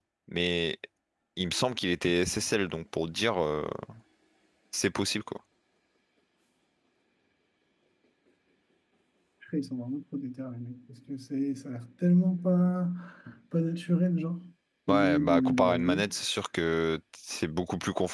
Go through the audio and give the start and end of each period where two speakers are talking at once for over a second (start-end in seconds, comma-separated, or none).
14.9-16.1